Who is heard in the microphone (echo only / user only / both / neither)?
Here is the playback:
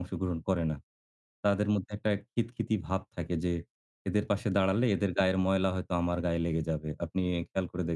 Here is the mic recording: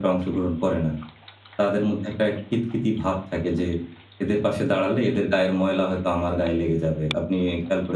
echo only